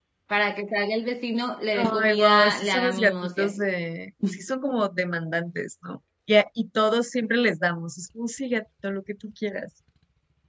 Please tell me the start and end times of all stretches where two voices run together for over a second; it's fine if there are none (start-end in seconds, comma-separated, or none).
2.0-3.6